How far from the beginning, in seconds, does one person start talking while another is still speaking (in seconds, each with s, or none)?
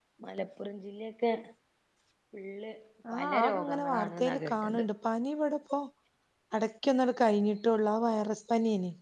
3.1 s